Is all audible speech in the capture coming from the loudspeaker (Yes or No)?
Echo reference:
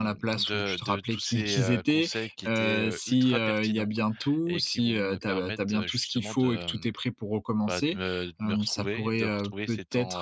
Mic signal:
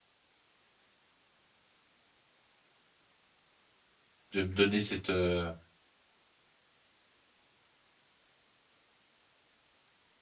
No